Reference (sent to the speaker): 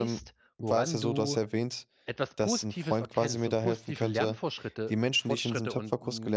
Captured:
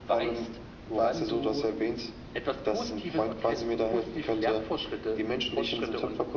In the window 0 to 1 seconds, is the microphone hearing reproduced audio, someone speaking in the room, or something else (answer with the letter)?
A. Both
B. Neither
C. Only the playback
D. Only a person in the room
C